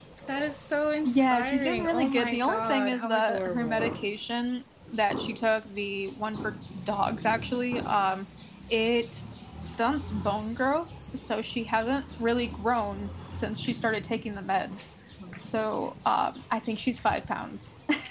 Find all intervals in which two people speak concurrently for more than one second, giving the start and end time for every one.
1.0-4.0

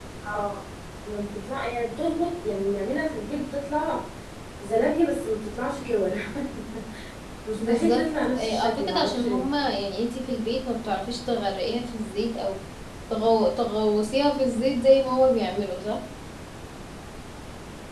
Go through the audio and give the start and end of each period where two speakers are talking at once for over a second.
7.7-9.4

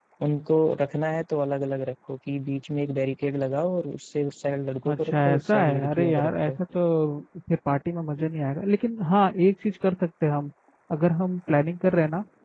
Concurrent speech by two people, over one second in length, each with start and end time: 4.9-6.5

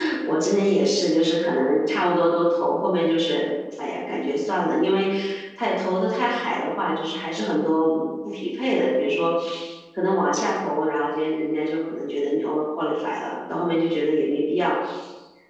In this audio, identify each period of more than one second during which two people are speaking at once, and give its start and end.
none

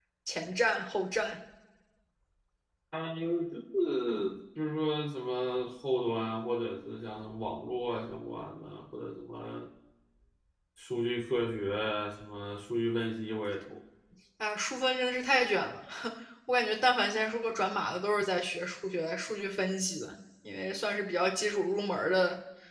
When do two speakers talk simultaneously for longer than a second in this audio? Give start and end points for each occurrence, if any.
none

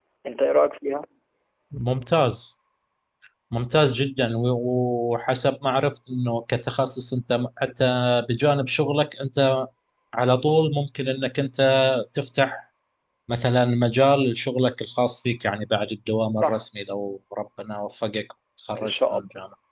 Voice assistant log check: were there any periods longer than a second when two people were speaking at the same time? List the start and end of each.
none

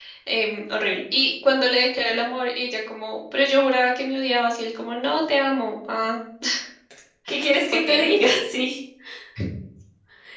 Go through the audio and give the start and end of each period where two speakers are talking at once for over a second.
none

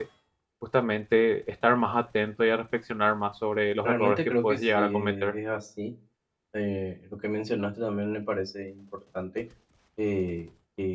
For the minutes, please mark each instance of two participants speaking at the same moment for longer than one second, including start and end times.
3.8-5.3

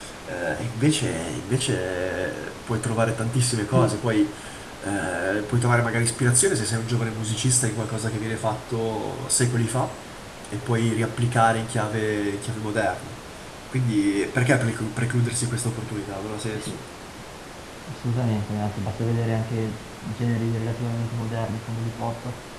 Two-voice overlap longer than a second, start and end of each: none

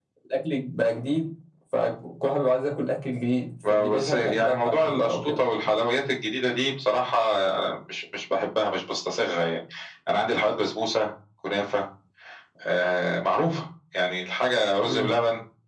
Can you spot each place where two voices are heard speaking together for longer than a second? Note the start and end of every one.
3.9-5.5

